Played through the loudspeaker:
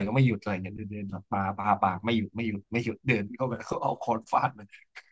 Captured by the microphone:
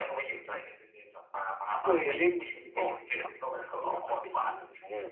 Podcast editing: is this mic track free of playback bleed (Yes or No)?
No